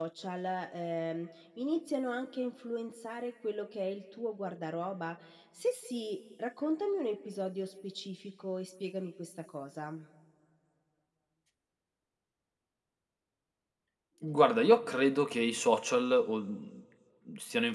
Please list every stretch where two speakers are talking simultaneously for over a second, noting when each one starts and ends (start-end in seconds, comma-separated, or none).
none